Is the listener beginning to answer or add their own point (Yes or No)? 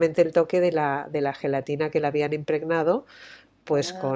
No